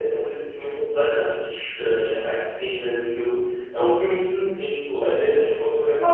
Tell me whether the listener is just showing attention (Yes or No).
No